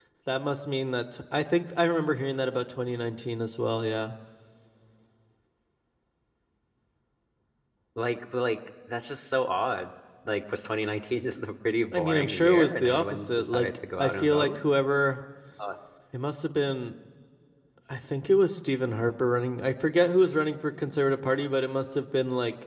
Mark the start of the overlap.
11.9 s

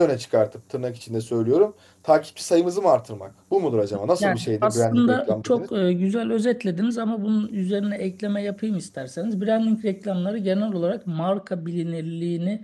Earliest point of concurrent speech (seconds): 4.2 s

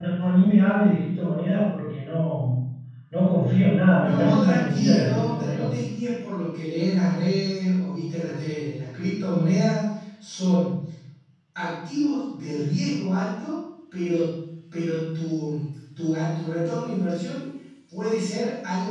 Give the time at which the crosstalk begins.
4.0 s

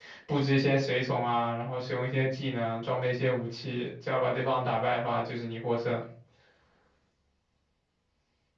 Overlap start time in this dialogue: none

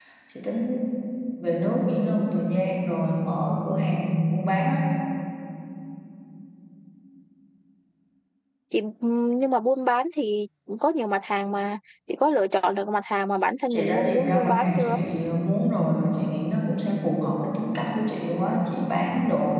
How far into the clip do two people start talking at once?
13.7 s

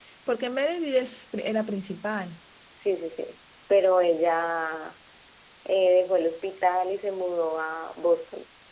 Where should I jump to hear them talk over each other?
none

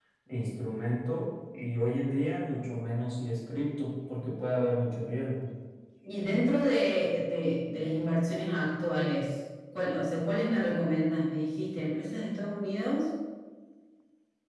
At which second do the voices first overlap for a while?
none

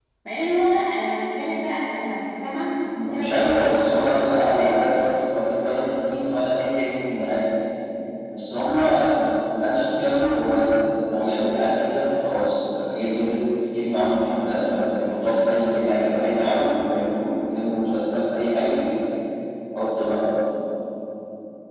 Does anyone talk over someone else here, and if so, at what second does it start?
3.1 s

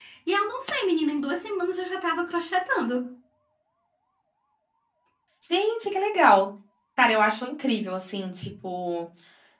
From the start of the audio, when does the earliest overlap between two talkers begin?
none

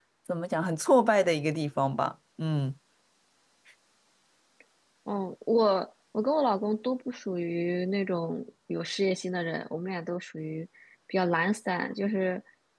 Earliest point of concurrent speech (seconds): none

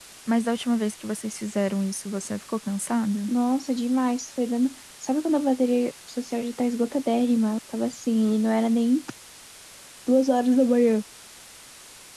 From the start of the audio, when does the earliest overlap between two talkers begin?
none

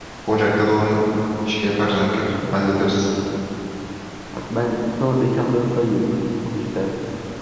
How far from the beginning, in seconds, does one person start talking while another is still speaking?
none

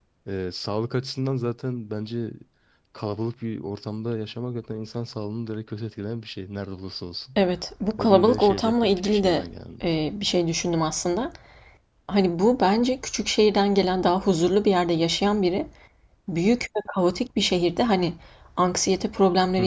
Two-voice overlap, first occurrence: 8.0 s

